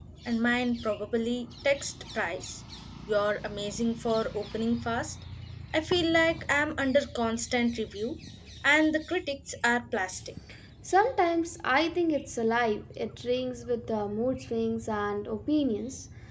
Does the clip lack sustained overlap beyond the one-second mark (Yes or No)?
Yes